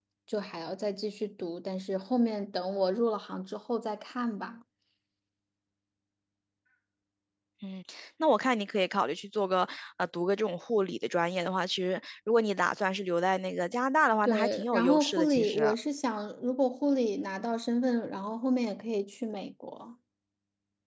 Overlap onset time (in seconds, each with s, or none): 14.2 s